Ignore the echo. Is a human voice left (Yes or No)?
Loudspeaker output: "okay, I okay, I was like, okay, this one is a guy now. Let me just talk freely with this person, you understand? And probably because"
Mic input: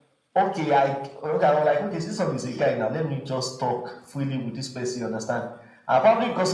No